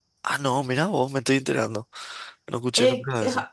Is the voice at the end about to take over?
Yes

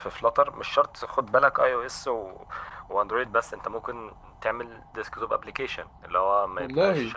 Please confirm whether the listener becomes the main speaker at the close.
No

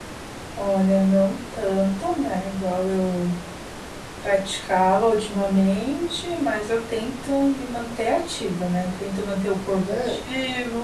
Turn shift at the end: No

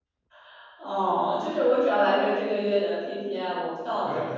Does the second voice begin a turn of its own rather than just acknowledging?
Yes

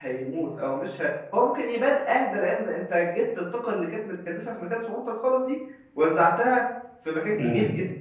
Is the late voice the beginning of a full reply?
Yes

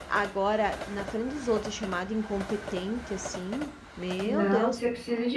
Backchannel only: No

